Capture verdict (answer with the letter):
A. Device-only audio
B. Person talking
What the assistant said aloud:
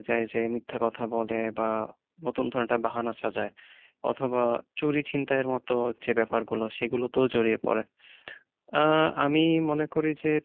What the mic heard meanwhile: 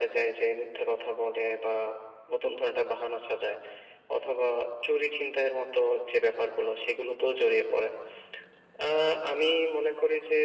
A